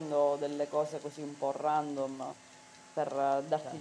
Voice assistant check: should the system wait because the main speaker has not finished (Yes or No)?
Yes